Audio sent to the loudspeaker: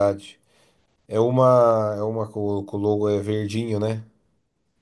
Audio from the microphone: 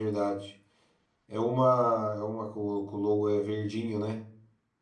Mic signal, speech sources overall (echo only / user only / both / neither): echo only